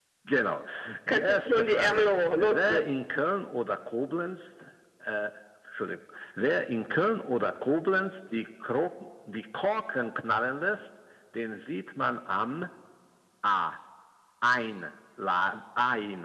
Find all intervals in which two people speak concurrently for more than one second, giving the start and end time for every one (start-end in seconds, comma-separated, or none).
1.1-2.9